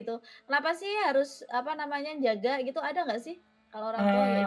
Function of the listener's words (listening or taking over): taking over